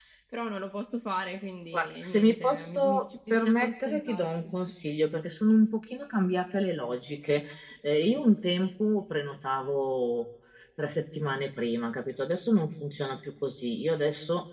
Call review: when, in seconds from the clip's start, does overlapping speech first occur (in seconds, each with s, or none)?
1.7 s